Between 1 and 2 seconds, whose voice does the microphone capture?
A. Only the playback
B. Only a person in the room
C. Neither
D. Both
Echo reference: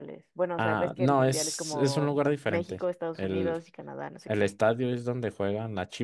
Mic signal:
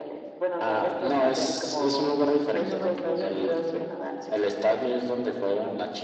A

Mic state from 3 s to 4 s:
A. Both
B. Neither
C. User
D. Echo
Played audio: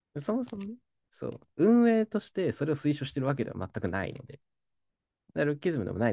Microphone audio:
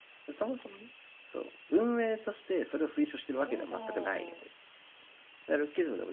A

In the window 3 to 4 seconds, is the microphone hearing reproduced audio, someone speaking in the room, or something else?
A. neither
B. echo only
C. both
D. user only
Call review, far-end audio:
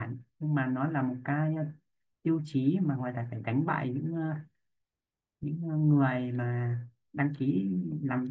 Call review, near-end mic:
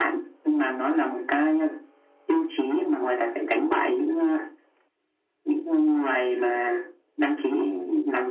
B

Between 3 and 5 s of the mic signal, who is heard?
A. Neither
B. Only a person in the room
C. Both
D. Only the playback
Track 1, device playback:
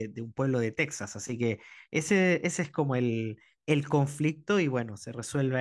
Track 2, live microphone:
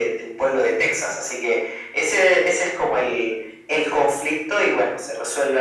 D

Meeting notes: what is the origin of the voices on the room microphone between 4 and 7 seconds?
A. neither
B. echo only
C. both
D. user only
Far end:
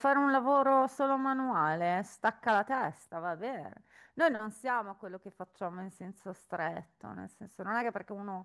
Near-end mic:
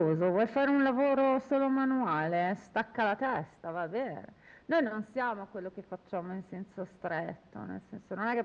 B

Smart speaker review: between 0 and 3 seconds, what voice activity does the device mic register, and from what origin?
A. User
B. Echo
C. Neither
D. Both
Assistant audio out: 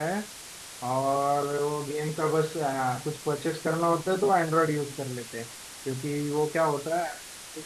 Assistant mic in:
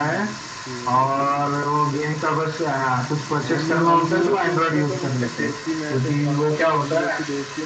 D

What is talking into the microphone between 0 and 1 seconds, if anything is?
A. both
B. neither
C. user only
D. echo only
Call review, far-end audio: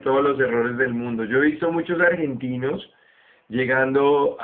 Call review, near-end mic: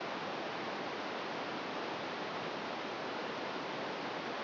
B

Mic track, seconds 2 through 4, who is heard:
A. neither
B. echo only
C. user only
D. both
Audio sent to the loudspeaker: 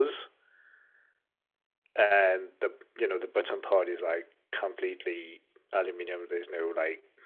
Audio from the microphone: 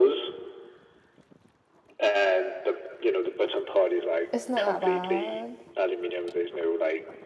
B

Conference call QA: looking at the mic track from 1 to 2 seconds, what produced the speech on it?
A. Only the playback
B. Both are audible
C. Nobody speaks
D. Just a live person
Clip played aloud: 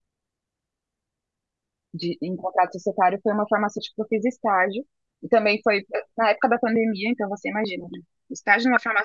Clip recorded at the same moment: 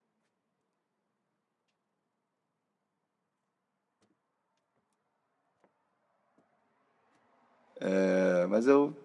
C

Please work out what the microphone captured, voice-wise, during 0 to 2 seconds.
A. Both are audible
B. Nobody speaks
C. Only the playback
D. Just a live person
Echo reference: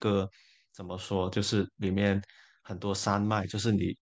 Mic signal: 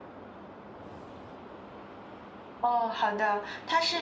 B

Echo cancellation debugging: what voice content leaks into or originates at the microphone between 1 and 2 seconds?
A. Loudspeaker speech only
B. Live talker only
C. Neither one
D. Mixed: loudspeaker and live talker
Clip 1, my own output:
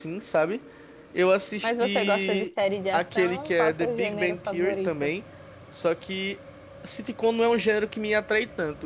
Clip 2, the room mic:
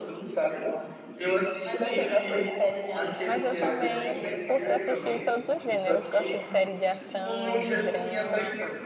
A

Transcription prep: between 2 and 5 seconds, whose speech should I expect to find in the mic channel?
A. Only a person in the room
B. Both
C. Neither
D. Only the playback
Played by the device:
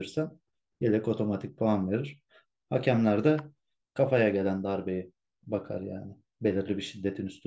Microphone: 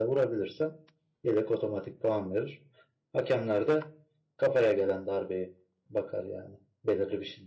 D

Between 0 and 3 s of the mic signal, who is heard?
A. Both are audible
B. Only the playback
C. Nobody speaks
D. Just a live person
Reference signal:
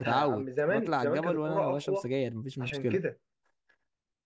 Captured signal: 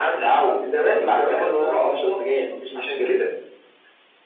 B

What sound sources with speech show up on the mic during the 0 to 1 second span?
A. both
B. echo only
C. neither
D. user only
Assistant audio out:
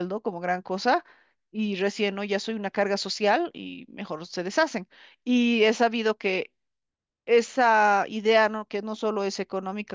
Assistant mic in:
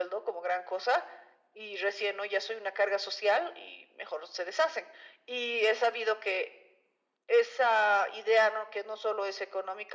B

